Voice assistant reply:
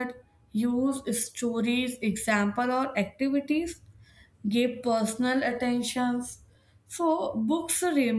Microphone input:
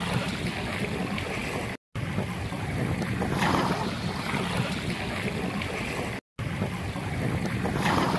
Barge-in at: none

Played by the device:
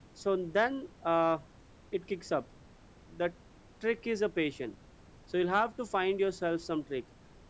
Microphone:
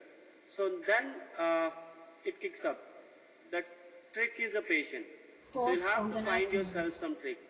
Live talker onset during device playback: 5.5 s

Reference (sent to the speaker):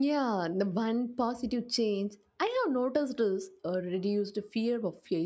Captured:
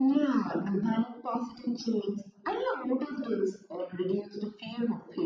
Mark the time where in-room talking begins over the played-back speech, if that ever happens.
none

